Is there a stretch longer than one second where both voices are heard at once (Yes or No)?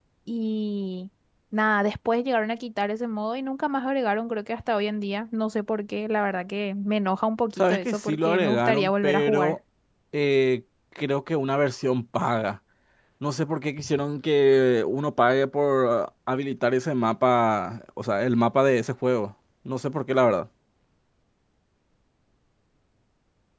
Yes